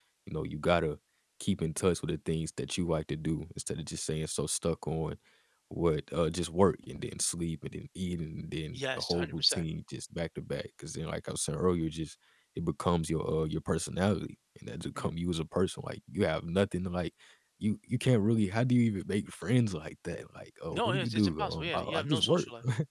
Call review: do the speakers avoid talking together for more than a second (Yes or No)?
No